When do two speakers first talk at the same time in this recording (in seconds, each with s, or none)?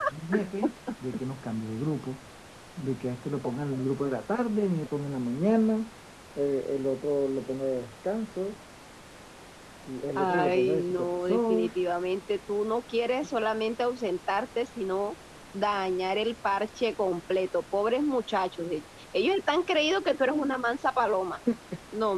10.2 s